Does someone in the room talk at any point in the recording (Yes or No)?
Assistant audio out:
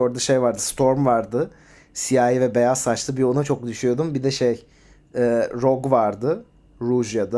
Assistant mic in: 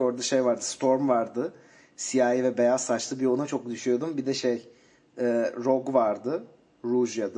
No